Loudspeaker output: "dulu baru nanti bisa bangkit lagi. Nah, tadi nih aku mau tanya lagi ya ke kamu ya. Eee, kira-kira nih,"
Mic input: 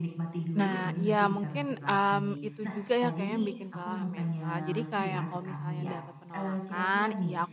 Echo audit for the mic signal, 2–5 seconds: both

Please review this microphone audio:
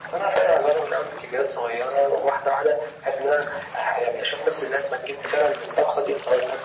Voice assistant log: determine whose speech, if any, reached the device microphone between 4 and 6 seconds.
echo only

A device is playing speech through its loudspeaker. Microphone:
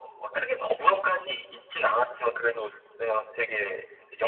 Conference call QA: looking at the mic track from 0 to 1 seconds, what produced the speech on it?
echo only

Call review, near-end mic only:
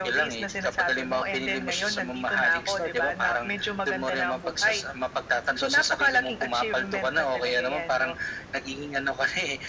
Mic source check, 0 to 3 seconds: echo only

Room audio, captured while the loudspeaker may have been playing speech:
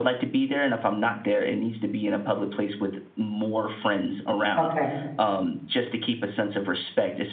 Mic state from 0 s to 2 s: echo only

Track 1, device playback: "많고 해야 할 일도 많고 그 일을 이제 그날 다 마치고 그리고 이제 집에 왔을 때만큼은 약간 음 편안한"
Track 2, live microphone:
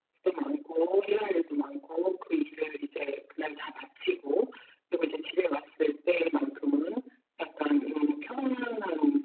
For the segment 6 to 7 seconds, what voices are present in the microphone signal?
echo only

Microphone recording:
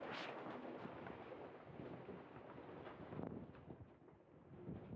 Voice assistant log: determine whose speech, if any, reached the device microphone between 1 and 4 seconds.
neither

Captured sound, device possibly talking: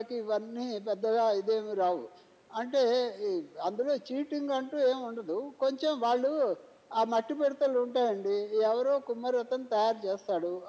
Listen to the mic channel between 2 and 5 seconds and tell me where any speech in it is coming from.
echo only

